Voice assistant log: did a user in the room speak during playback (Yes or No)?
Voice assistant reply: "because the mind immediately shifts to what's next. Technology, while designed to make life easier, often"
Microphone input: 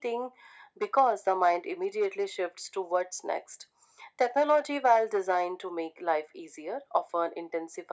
No